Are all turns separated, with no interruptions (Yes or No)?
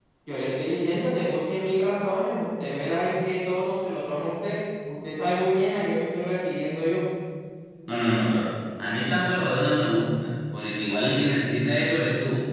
Yes